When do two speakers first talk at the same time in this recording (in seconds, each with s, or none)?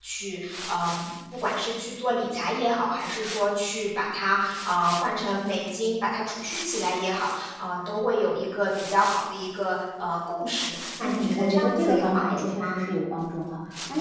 11.0 s